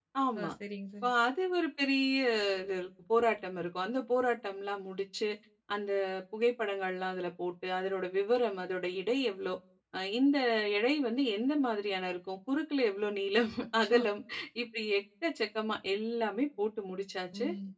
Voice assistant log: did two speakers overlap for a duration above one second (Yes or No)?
No